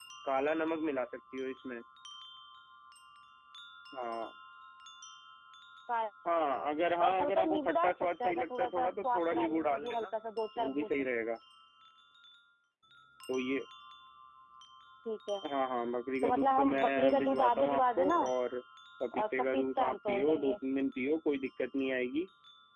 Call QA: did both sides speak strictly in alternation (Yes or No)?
No